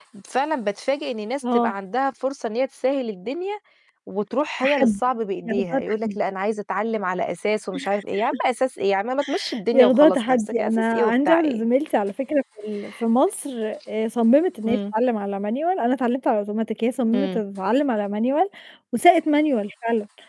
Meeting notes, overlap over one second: present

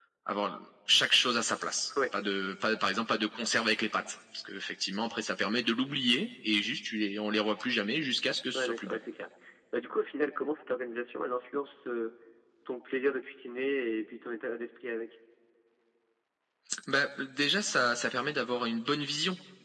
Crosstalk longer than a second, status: none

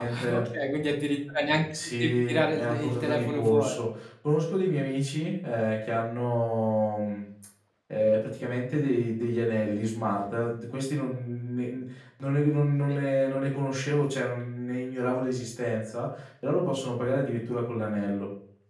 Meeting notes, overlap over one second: present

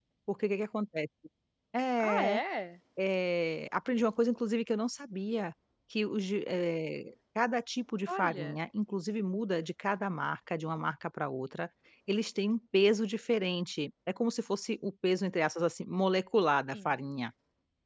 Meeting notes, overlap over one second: none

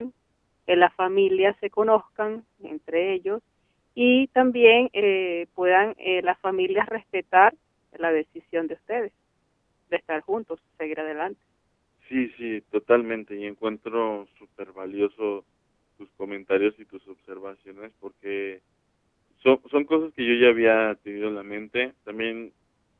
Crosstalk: none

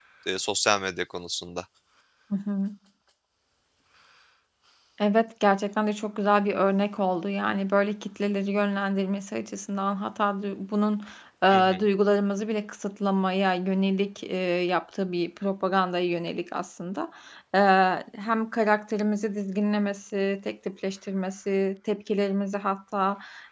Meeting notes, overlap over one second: none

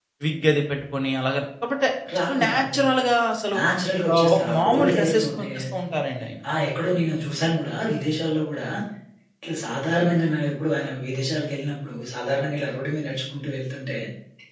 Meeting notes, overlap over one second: present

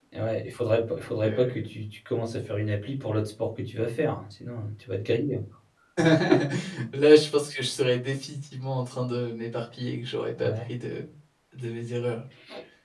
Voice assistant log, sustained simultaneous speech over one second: none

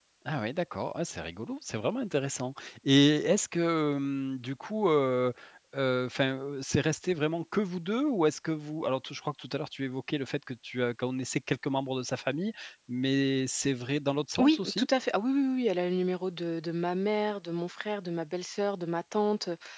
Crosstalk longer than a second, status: none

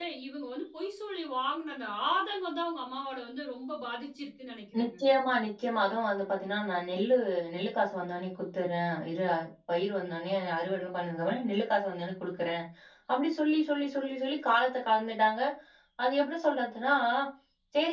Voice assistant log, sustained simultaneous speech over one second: none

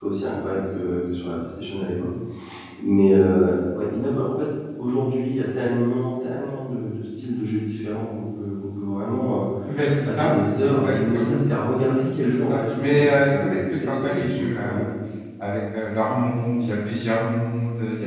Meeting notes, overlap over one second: present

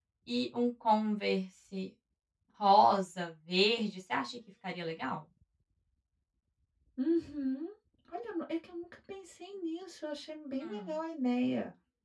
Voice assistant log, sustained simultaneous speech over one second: none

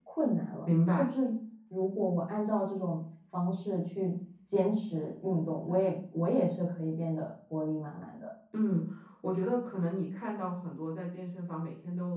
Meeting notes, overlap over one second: none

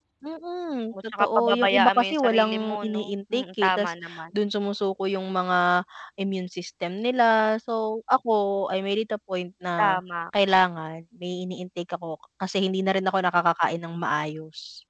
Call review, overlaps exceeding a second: present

